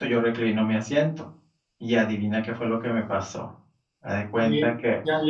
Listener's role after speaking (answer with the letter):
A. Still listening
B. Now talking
B